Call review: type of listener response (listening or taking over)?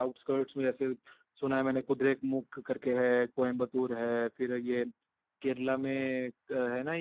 listening